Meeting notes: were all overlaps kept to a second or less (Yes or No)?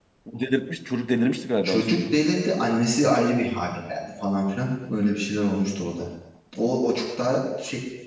Yes